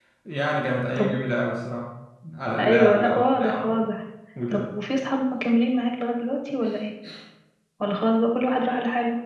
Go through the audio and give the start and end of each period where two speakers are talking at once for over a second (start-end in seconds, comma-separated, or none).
2.6-3.9